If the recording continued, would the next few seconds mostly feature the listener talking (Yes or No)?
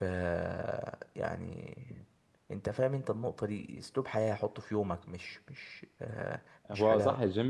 Yes